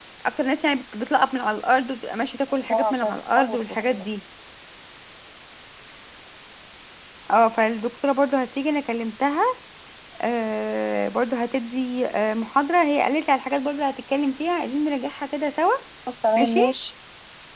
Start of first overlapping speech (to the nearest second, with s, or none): 3 s